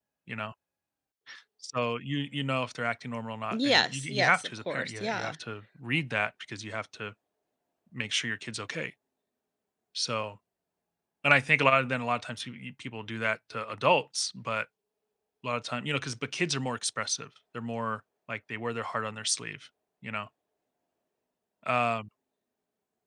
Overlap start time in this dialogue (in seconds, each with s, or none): 3.5 s